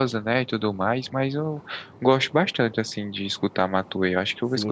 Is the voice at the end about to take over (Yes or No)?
Yes